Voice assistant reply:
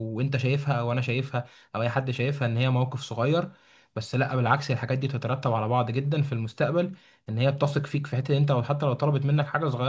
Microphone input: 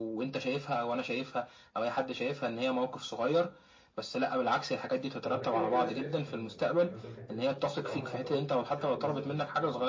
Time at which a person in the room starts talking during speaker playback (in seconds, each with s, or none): 5.2 s